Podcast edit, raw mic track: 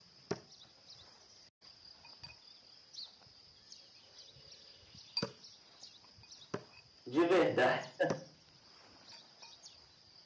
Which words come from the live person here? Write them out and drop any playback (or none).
de verdade.